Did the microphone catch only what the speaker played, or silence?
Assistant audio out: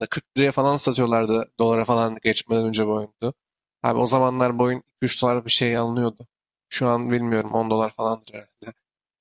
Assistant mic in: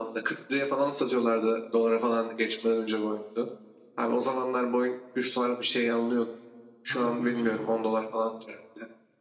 No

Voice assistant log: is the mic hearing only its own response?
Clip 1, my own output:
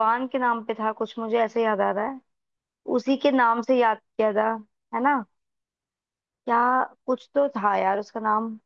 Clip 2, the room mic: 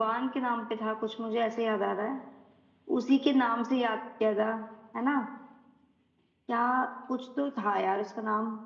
Yes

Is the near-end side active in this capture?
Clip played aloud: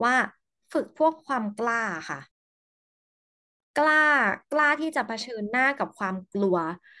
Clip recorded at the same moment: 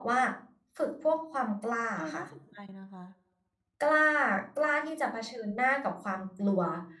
Yes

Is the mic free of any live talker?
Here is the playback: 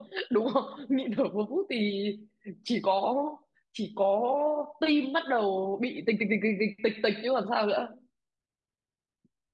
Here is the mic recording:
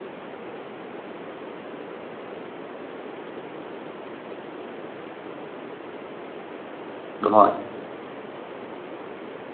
No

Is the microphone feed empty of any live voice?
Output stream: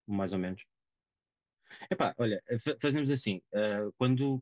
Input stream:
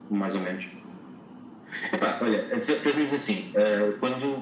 Yes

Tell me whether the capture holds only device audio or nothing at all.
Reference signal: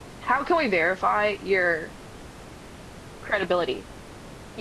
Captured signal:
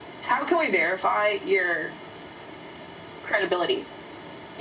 Yes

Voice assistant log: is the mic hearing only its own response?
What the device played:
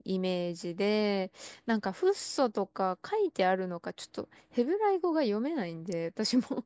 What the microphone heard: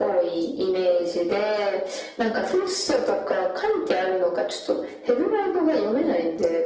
Yes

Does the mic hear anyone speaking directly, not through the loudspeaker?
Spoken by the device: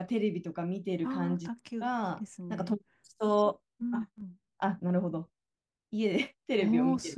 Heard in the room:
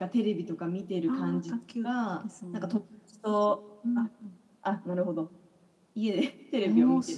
No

